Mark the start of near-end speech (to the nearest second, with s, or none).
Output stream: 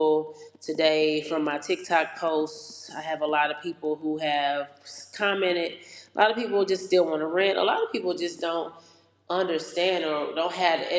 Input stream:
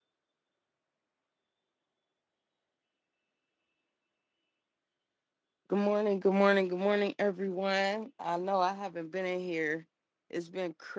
6 s